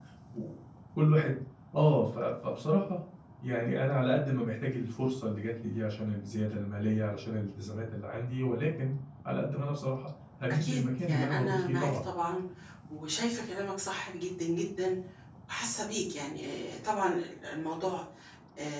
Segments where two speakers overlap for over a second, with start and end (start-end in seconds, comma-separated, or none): 10.5-12.1